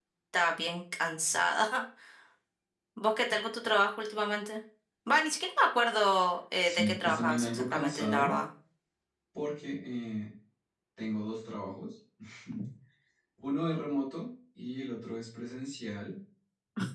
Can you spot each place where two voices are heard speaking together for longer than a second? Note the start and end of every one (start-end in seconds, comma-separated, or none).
6.6-8.4